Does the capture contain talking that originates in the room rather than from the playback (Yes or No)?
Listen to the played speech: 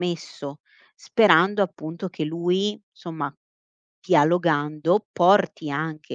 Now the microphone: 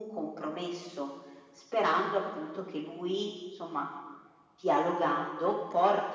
No